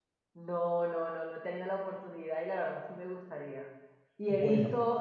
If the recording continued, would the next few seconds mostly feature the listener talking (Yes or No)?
No